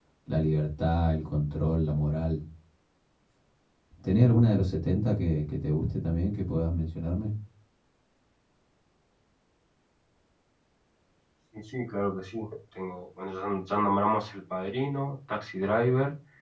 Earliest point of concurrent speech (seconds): none

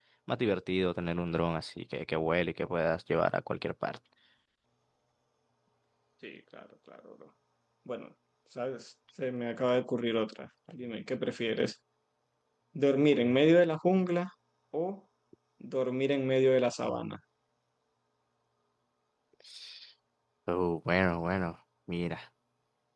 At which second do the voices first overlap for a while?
none

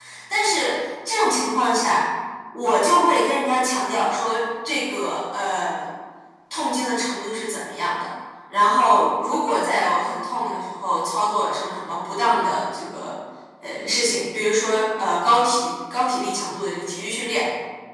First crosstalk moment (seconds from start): none

